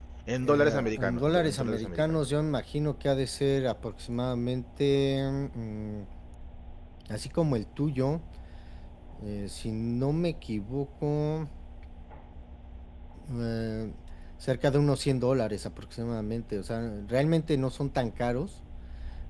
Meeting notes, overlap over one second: present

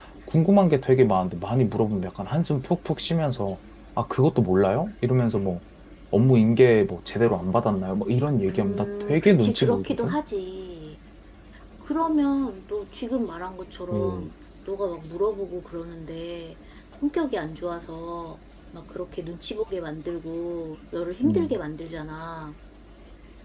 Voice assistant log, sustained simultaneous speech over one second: present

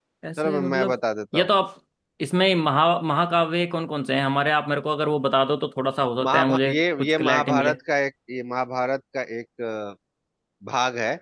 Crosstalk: present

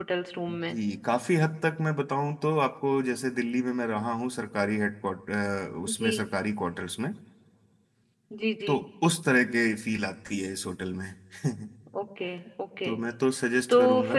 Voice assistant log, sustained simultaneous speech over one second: none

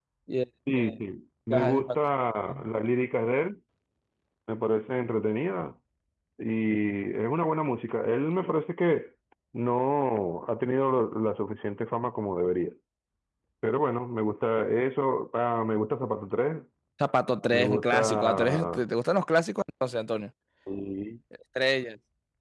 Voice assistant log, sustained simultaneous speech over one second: present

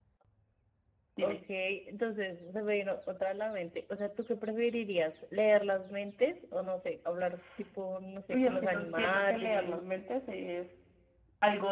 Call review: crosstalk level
present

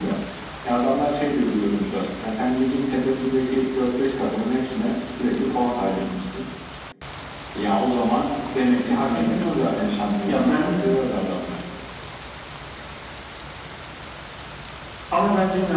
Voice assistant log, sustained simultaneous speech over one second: none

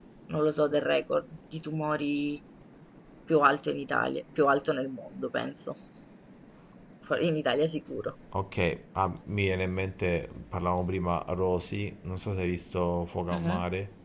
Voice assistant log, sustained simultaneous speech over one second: none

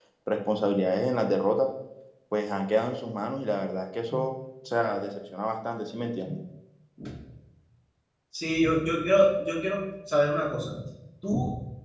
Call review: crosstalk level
none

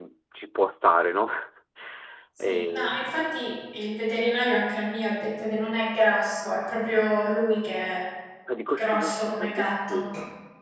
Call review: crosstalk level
present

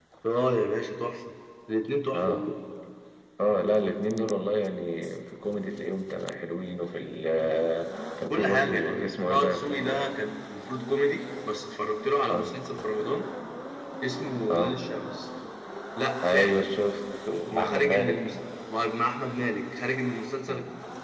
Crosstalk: present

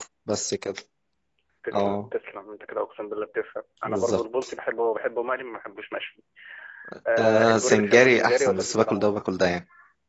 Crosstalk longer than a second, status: present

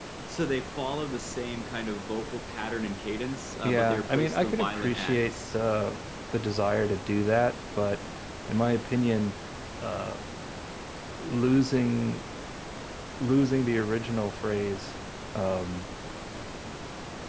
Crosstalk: present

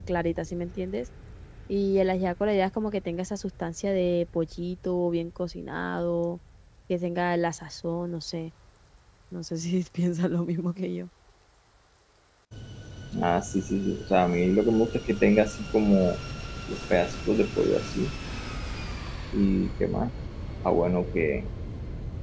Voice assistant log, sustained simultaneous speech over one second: none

